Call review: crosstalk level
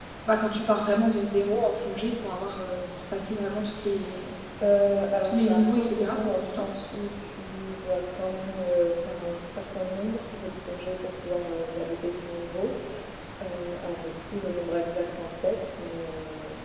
present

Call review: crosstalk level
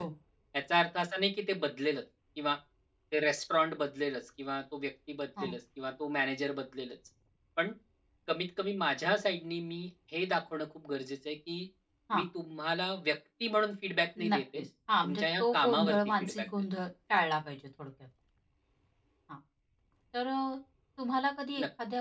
present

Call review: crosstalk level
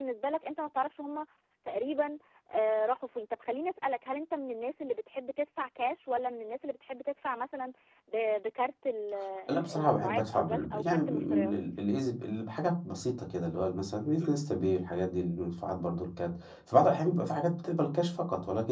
present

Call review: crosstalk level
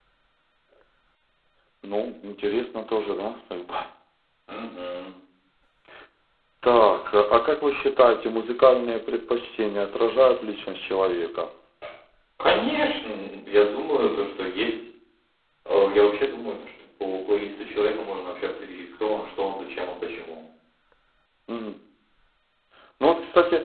none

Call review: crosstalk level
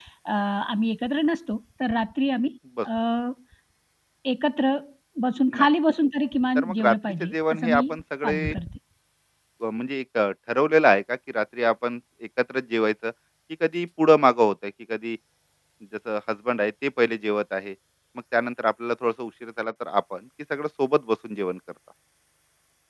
present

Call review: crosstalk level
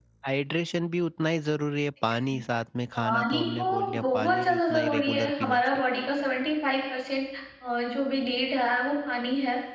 present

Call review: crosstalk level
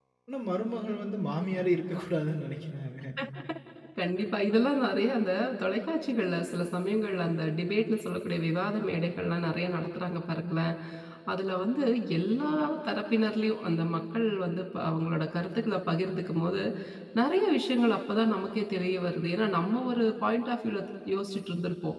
none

